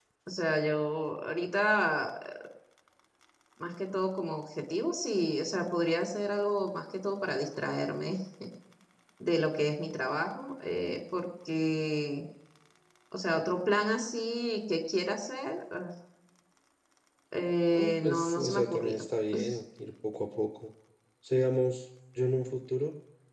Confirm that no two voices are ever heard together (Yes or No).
No